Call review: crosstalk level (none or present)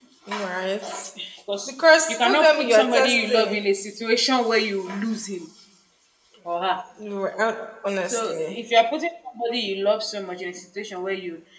present